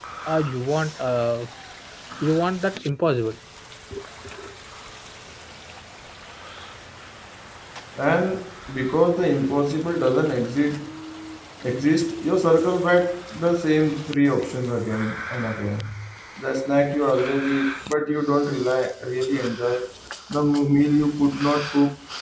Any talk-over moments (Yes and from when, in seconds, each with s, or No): No